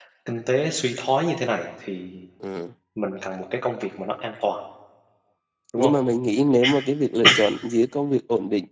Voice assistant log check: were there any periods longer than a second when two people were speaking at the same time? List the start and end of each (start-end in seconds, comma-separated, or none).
none